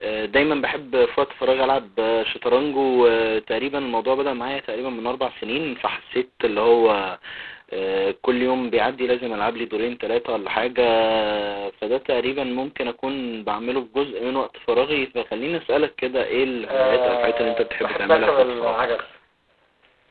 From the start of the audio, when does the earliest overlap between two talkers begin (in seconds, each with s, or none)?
16.7 s